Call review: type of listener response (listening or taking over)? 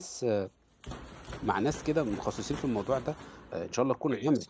listening